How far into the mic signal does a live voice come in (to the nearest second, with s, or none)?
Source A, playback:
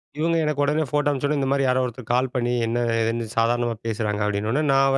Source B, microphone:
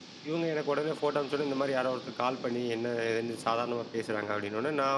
none